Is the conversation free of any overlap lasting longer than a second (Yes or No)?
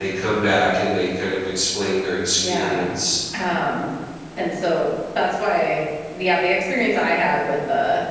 Yes